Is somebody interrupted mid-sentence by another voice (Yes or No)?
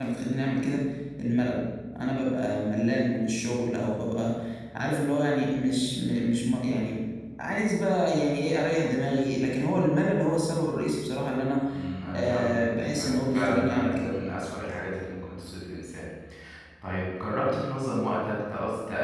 Yes